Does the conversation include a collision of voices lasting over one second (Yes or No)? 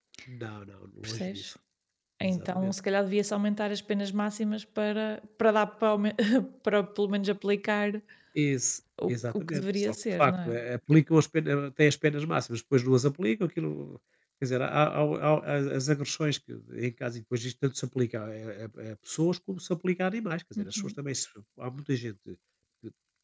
Yes